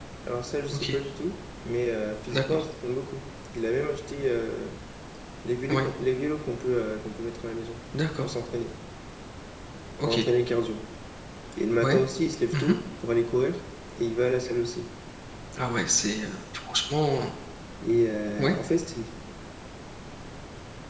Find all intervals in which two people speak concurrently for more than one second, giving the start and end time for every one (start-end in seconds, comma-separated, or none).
none